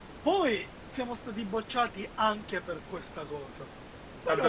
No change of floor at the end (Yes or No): No